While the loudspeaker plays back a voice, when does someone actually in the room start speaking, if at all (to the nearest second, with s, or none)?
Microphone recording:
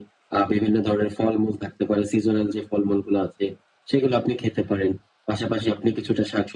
none